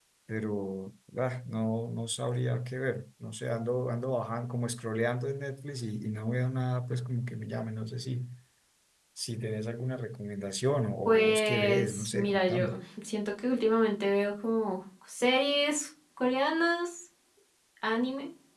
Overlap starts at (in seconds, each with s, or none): 11.1 s